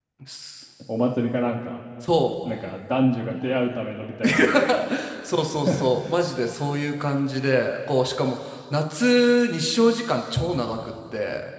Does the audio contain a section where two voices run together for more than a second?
No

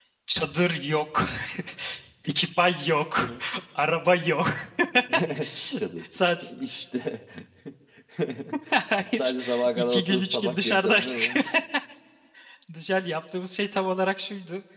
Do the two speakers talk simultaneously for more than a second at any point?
Yes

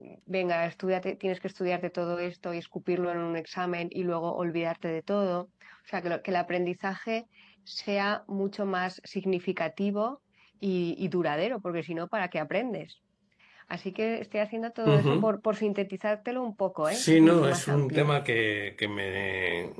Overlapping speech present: Yes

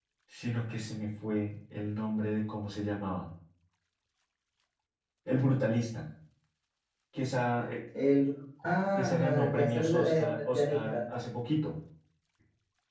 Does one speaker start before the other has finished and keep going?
Yes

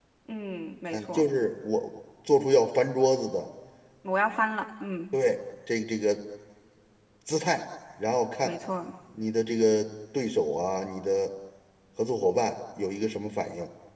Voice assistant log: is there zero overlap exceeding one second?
Yes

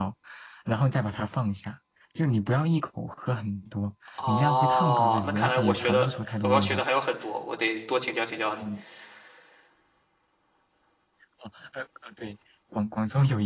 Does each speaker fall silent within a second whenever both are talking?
No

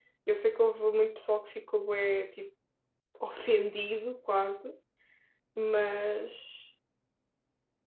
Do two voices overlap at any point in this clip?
No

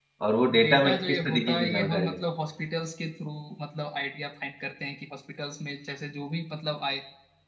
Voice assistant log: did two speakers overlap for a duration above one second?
Yes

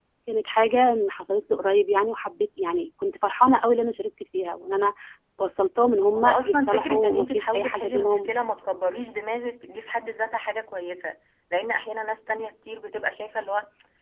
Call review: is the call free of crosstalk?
No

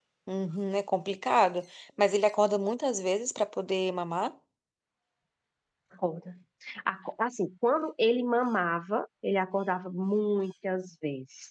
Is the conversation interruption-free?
Yes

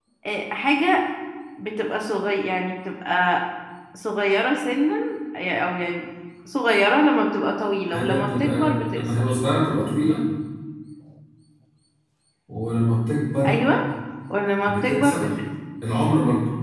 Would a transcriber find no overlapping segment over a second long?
No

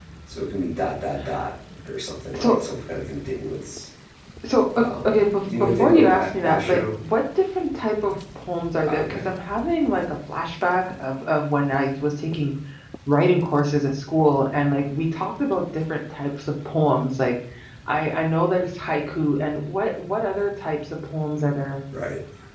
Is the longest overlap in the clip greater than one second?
Yes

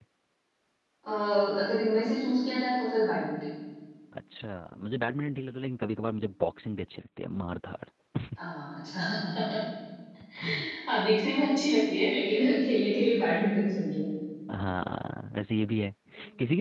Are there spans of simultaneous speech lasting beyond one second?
No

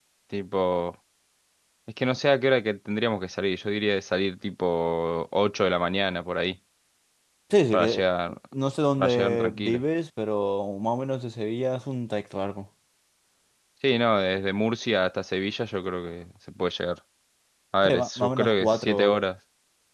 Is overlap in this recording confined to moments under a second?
No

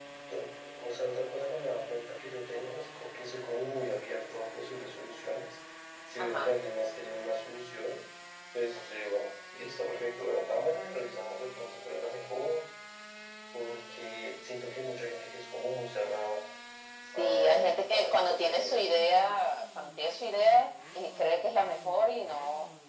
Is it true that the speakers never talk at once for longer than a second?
No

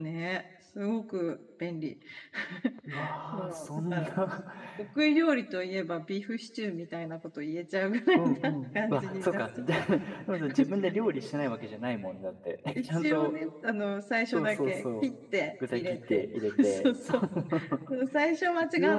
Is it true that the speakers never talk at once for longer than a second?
No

